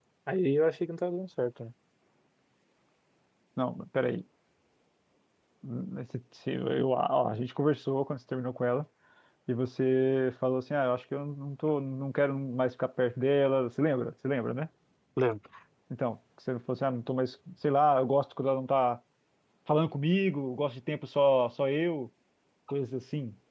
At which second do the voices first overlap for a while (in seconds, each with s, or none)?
none